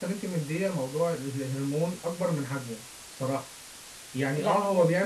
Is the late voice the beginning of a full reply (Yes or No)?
No